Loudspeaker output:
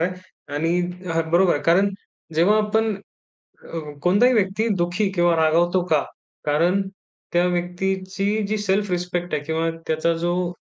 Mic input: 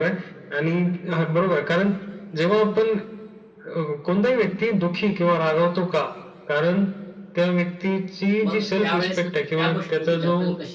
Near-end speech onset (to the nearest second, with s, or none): 8 s